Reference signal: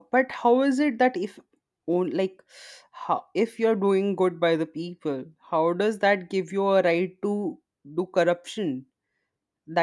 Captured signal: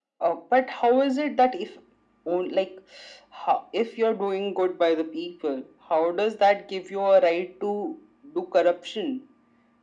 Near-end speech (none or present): none